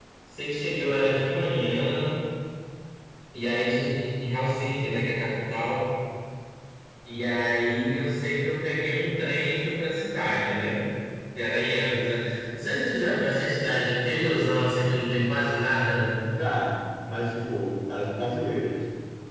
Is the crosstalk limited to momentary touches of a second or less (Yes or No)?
Yes